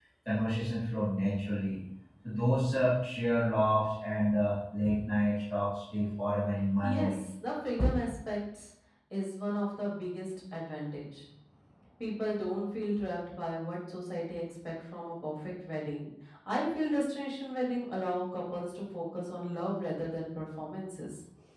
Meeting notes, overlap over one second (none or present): none